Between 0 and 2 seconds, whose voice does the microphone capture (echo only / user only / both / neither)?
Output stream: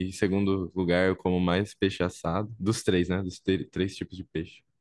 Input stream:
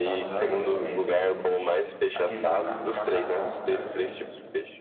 both